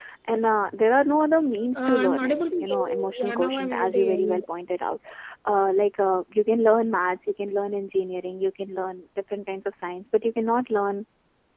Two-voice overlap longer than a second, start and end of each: 1.8-4.4

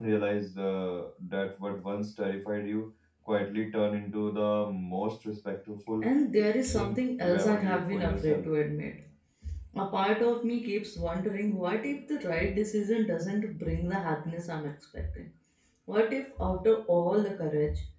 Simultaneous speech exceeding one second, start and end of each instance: 6.7-8.4

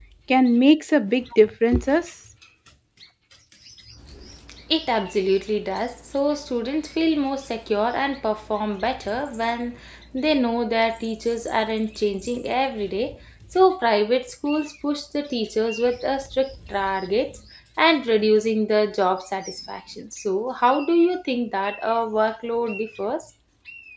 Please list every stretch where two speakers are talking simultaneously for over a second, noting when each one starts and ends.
none

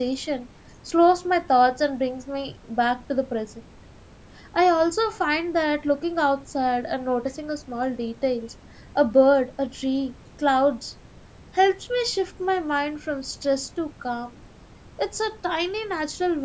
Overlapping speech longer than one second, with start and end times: none

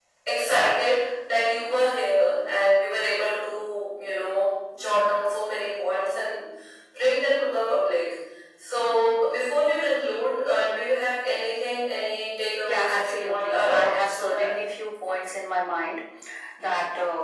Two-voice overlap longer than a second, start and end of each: 12.6-14.5

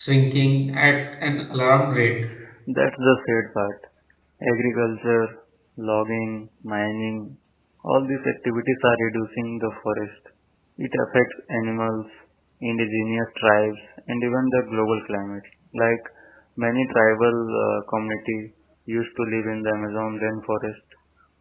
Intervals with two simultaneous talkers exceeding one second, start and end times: none

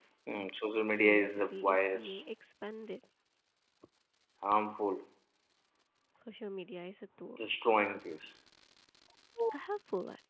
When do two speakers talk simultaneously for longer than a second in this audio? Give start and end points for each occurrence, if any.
0.9-2.2

